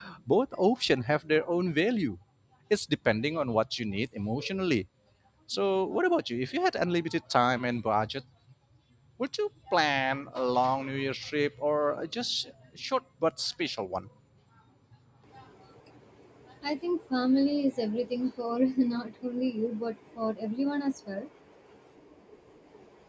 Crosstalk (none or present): none